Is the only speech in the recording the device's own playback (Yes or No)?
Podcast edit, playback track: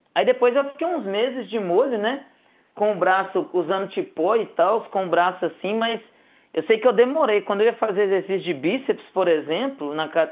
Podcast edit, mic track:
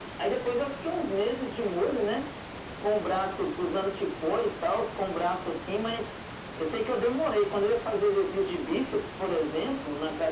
Yes